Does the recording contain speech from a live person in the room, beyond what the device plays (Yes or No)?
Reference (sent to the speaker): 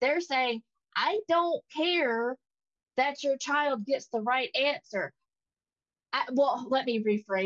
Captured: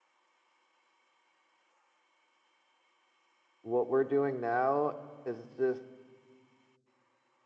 Yes